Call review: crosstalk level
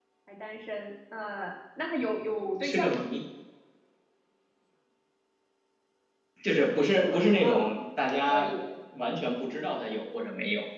present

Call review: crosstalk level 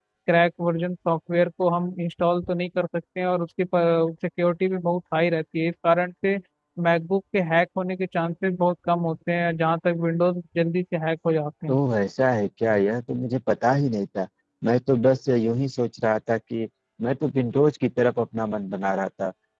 none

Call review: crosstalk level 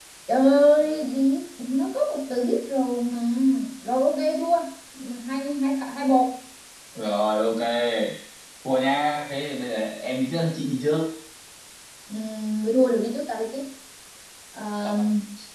none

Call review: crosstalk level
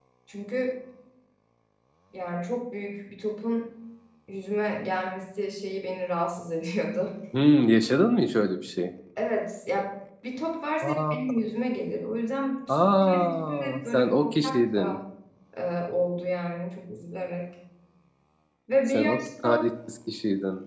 present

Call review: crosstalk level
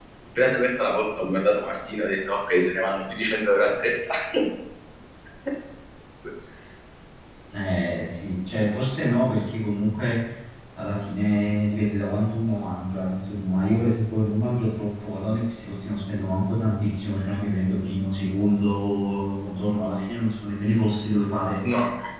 none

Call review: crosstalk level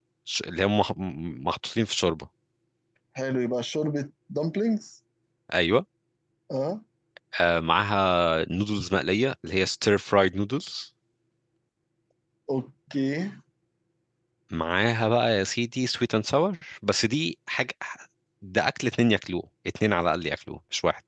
none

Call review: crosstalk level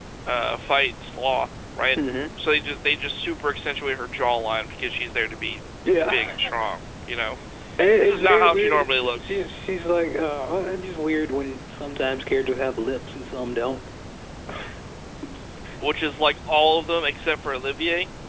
present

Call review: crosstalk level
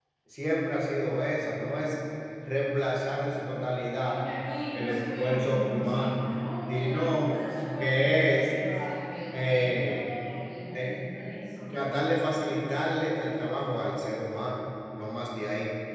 present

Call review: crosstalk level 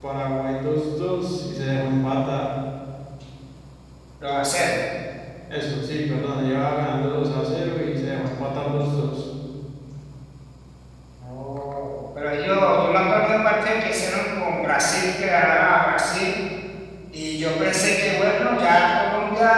none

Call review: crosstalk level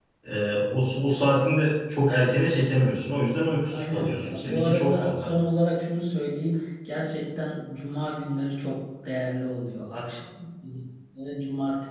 present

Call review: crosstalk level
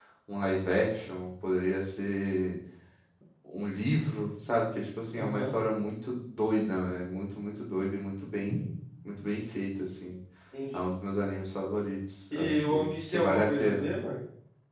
present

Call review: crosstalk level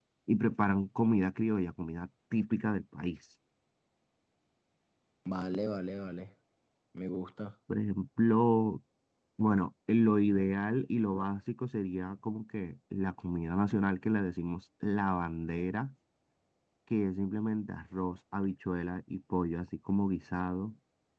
none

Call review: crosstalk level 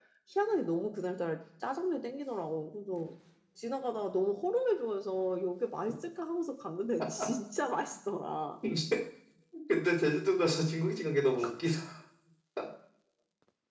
none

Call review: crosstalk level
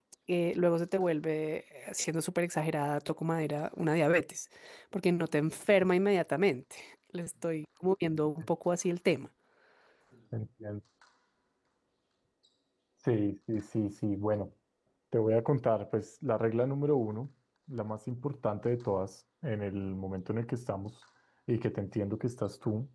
none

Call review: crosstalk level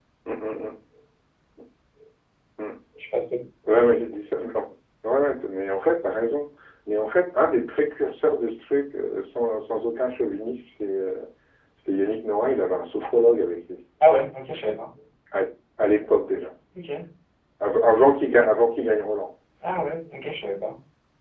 none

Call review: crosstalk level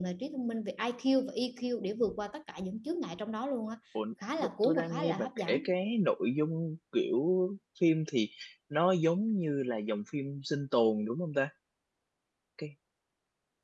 present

